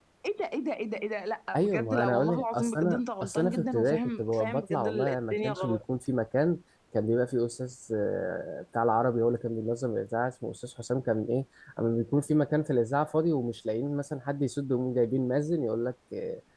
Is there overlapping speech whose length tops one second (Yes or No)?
Yes